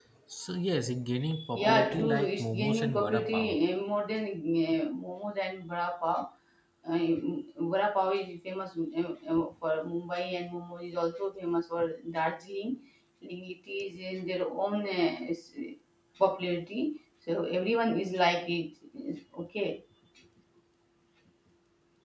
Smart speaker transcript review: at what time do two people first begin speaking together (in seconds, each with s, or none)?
1.5 s